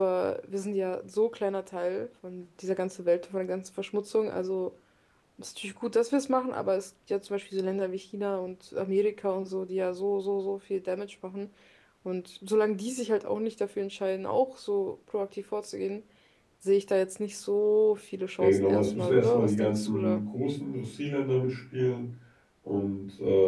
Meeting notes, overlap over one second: present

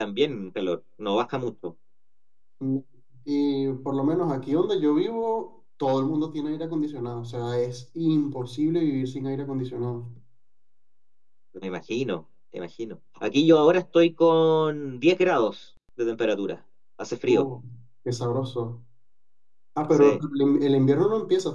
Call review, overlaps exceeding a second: none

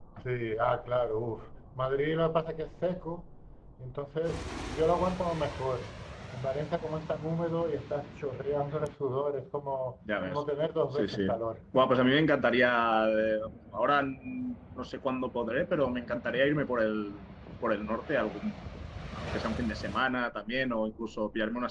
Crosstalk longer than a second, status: none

